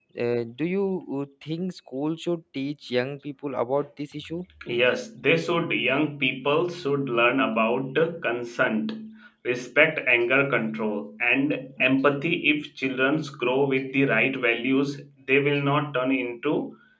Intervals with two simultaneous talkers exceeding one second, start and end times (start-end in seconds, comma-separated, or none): none